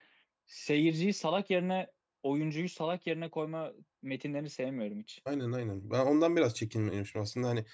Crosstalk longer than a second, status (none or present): none